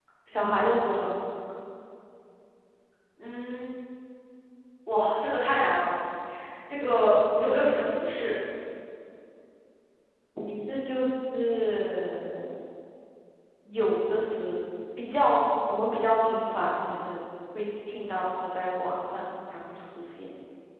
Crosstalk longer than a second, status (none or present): none